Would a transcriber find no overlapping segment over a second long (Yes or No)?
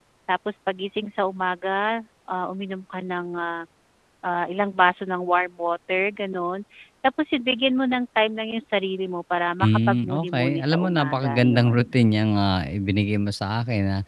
No